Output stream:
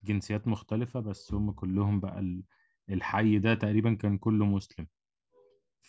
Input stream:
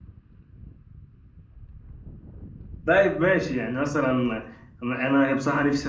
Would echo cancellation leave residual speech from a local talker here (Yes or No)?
Yes